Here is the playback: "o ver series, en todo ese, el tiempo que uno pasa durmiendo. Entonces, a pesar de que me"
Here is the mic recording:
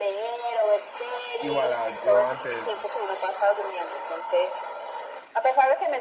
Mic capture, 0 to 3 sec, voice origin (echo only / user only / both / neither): both